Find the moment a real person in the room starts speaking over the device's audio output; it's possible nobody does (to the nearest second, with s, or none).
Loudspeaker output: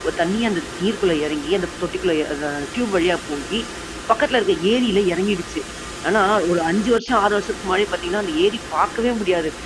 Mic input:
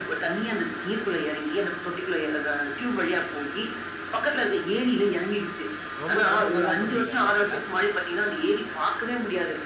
6 s